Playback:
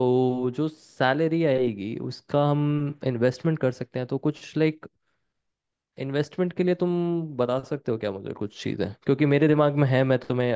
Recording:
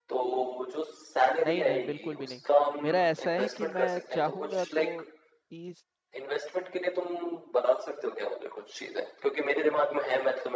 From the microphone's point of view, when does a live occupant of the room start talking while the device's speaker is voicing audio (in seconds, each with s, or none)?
1.4 s